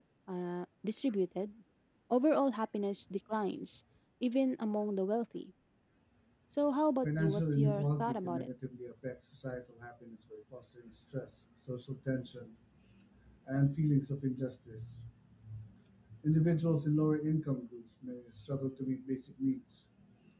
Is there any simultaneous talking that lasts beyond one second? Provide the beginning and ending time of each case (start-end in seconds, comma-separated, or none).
7.0-8.5